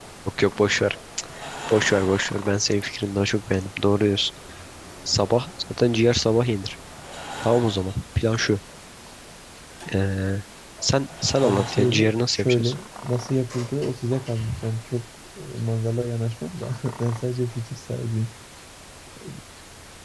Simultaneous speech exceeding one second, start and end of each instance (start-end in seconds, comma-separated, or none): 11.4-12.7